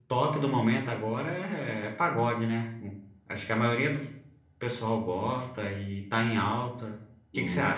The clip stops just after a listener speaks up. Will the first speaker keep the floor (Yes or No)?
No